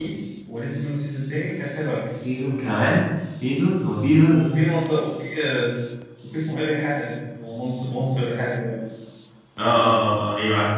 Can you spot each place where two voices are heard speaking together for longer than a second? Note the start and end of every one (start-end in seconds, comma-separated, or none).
none